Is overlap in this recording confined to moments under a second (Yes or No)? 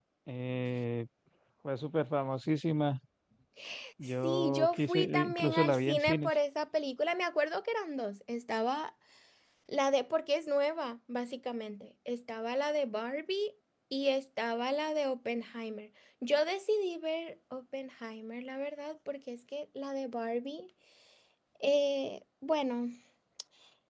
No